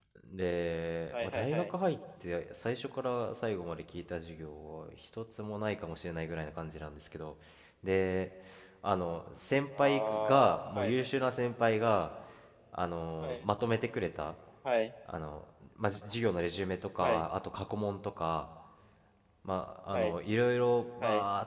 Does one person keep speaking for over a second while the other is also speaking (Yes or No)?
Yes